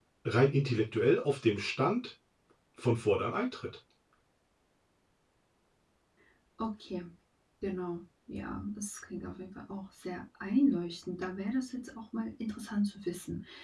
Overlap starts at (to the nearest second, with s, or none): none